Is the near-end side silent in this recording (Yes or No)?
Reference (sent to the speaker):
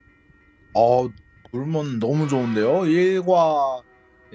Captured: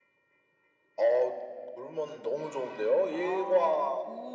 No